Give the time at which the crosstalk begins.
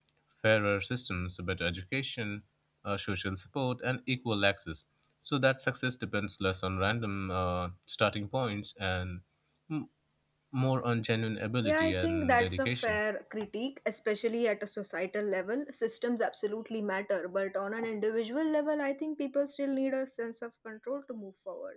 11.6 s

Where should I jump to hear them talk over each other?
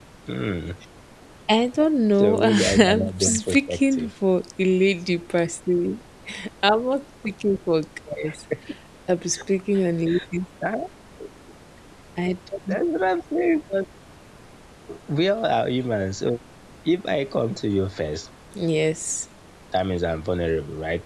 2.2 s

